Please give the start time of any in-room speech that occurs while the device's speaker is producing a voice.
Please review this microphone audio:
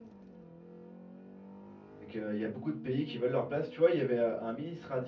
2 s

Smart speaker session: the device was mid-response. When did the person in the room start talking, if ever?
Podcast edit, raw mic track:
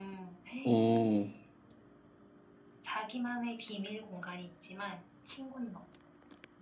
1 s

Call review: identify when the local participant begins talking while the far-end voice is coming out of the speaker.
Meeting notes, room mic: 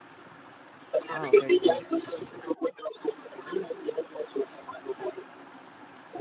1 s

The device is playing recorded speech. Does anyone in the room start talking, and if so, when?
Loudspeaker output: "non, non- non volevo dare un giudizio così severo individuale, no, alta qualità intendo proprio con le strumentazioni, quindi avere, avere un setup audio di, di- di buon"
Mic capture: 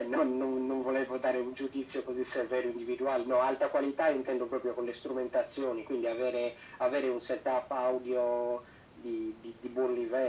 none

